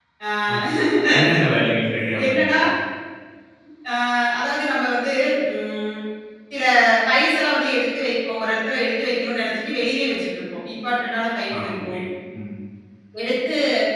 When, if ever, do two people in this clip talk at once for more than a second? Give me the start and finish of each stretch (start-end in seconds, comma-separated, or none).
none